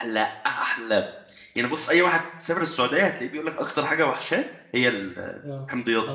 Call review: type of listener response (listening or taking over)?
taking over